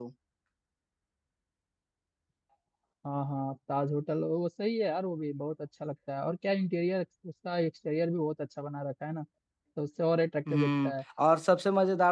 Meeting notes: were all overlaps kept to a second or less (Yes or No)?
Yes